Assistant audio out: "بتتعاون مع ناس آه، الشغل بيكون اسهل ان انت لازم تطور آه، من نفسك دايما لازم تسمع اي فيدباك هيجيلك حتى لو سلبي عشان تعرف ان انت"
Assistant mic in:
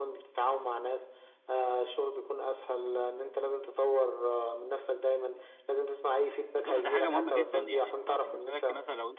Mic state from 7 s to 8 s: both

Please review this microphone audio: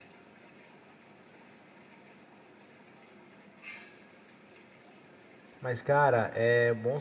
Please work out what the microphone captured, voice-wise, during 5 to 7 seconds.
user only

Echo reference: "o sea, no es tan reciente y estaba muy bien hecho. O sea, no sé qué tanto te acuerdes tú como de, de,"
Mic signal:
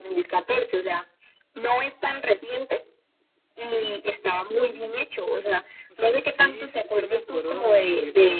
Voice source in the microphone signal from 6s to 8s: both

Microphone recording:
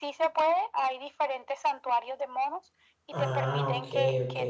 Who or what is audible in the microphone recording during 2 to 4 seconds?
both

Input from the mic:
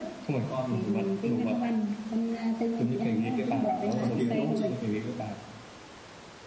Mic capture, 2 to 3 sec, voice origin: echo only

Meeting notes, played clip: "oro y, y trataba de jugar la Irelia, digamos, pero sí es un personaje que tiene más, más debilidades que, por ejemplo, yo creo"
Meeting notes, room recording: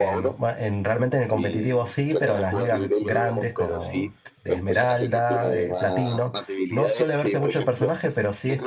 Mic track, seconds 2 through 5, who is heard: both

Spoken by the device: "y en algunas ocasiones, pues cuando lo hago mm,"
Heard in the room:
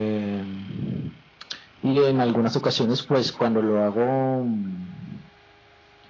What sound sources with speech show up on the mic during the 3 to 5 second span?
echo only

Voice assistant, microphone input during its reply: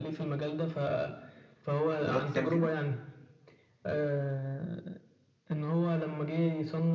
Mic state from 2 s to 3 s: both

